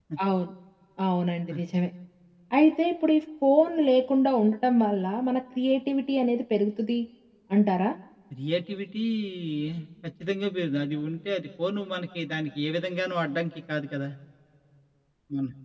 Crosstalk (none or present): none